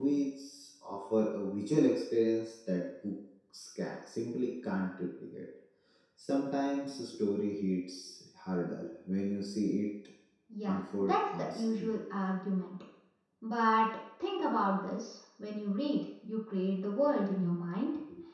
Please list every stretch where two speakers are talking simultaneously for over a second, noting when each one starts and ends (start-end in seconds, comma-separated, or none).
10.7-11.9